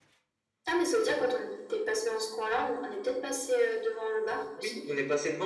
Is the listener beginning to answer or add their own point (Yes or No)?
Yes